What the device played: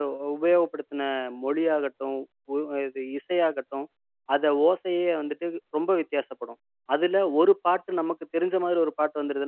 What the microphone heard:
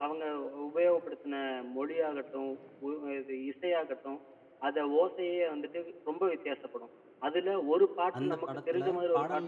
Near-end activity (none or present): present